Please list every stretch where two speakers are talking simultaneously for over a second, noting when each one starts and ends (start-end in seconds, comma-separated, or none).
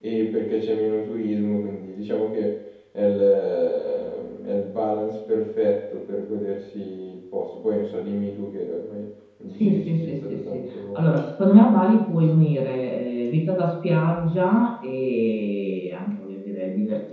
9.5-11.0